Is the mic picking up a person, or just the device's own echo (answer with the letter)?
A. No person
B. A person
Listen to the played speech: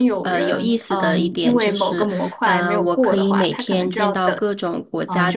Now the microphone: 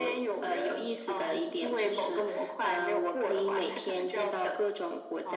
A